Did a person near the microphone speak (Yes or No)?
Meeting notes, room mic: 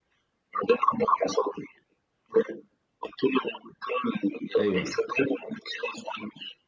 Yes